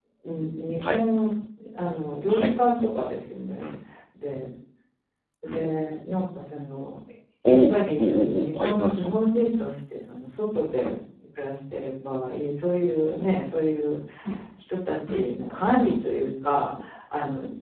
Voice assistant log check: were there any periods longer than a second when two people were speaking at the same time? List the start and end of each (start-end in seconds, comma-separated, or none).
7.5-9.5